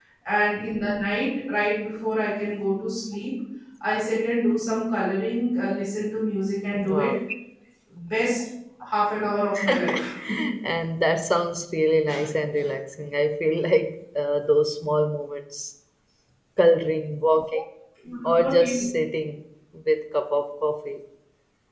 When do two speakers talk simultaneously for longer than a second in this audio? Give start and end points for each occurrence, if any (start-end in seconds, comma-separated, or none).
none